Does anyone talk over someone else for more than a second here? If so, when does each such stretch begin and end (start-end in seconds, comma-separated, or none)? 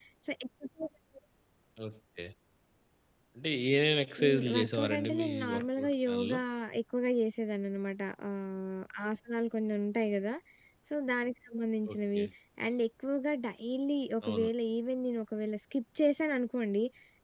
4.2-6.4